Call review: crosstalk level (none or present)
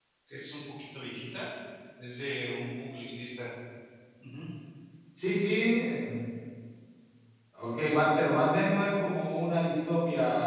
none